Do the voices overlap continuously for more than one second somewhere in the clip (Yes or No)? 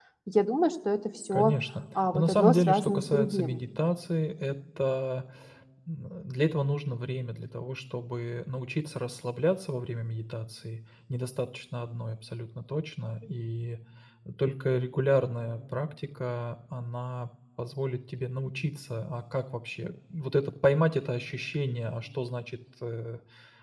Yes